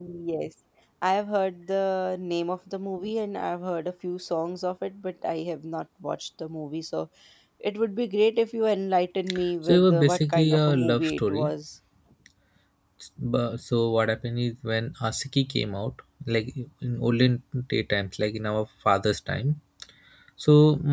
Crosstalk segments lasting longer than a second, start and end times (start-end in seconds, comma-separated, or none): 9.7-11.5